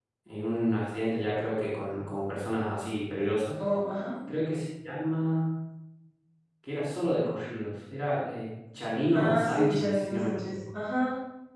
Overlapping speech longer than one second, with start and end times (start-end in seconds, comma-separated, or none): 9.1-10.6